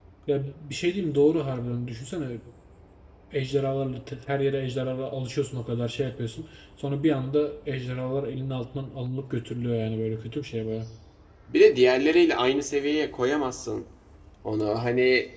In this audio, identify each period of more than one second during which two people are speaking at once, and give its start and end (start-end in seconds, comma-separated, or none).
none